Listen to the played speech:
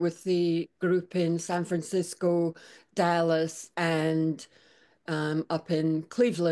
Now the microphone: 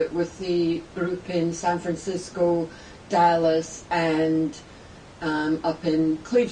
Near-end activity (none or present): none